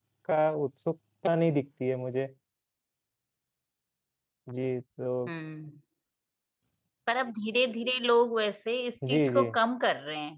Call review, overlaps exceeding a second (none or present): none